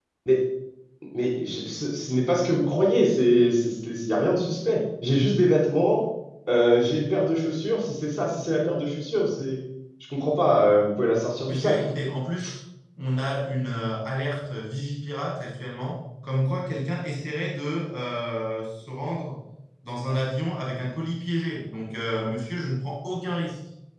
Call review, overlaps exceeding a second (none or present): none